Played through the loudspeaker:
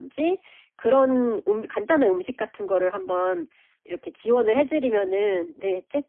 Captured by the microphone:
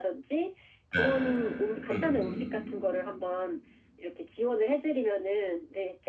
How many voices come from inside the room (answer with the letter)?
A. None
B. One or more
B